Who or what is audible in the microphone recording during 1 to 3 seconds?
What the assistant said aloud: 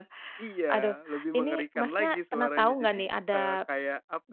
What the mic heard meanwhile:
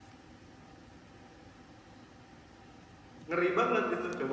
neither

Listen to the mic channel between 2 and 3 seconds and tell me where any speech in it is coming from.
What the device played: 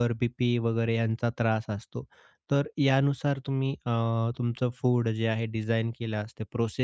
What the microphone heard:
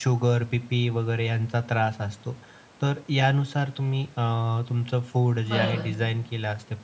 echo only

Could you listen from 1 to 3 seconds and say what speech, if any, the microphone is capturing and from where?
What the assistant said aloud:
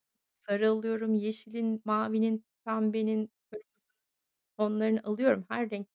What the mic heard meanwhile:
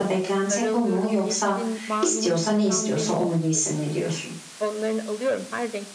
both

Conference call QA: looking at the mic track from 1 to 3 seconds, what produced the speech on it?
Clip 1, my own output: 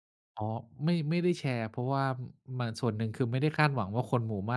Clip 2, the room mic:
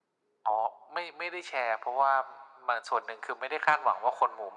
echo only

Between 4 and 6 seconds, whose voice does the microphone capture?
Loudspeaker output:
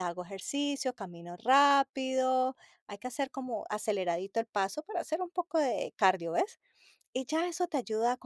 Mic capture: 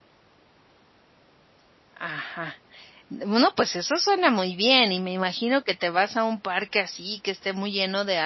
user only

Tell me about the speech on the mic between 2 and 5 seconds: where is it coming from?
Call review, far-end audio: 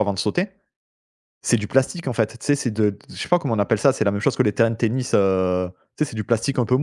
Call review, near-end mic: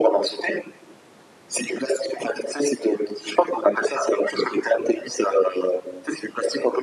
echo only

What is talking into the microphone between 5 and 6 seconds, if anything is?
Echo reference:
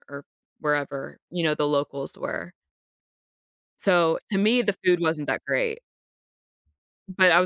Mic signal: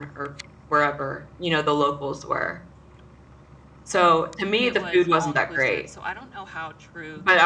both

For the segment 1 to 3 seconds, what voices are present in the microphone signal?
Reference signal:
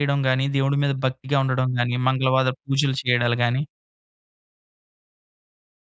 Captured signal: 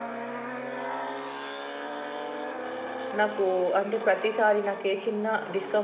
neither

